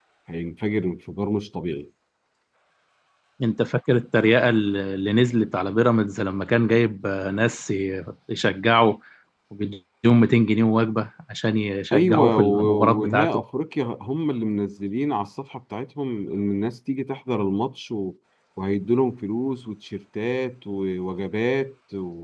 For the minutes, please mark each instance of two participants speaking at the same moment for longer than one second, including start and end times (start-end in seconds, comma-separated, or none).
11.9-13.4